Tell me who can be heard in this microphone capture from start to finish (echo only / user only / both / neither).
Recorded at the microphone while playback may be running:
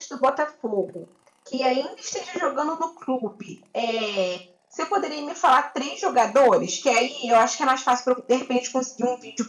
user only